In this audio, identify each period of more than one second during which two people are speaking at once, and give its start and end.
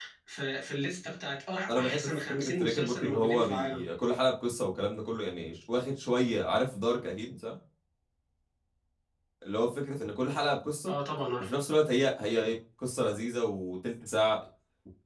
1.7-3.9

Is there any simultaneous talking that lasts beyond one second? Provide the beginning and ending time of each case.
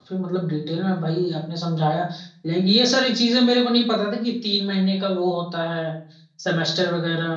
none

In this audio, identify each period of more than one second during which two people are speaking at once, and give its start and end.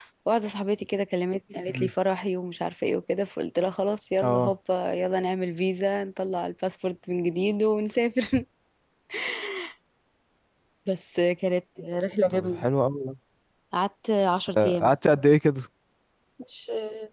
none

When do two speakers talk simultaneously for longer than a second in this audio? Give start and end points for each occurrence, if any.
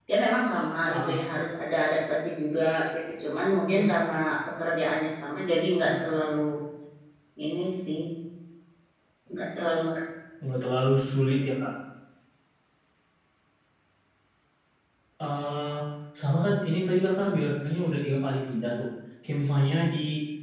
none

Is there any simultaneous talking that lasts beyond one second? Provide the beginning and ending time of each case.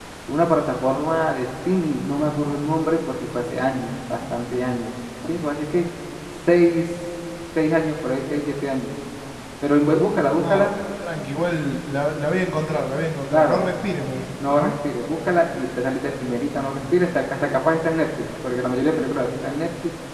none

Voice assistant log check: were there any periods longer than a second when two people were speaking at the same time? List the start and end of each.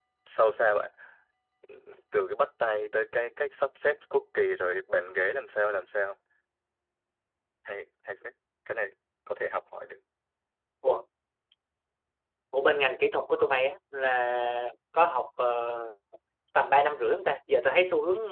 none

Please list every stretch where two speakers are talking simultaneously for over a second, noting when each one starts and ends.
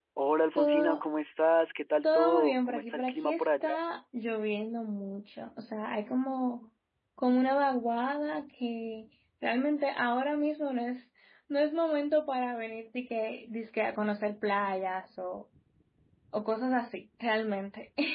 2.0-3.7

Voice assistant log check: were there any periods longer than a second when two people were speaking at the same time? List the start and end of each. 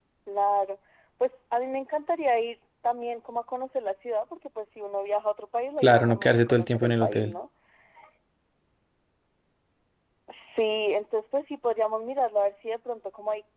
5.8-7.3

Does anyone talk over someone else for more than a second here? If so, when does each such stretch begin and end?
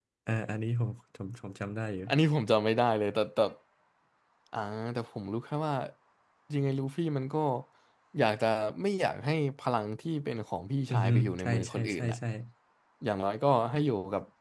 10.9-12.2

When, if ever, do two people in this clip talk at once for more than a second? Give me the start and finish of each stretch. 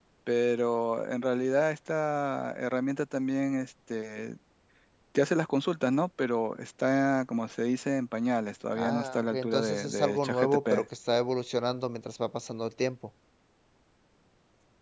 8.7-10.6

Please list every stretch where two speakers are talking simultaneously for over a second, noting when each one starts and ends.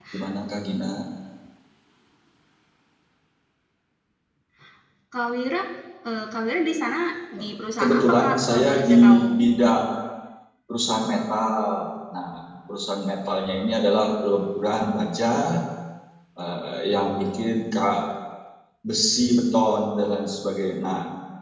7.8-9.3

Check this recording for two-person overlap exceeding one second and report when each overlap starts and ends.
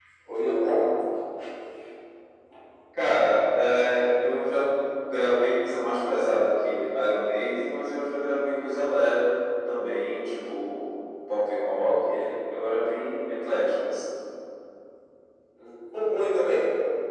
none

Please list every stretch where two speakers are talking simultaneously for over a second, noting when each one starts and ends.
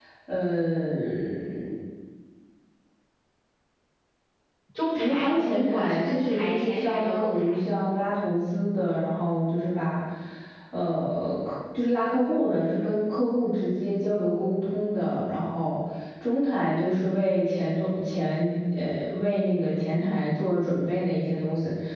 4.9-7.5

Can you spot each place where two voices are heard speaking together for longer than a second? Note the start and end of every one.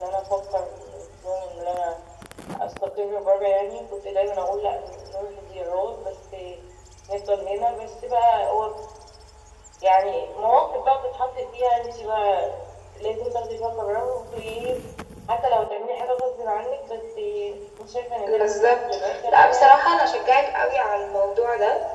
18.3-19.8

